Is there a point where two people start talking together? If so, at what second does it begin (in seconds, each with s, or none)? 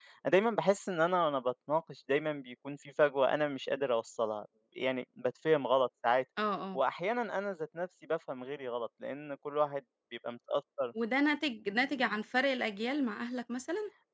none